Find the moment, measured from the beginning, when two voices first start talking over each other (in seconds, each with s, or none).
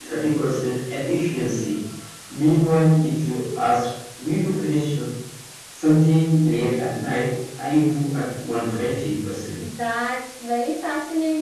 none